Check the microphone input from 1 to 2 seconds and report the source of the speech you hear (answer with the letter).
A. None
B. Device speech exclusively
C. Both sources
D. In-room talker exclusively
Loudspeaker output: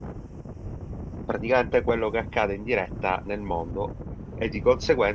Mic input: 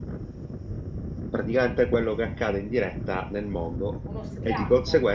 B